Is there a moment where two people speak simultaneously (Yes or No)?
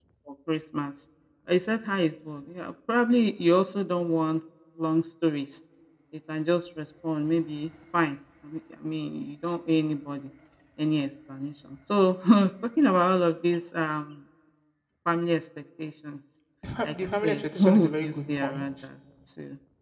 Yes